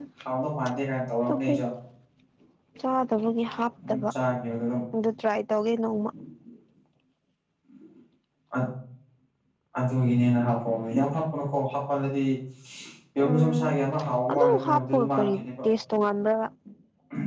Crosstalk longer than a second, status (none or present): present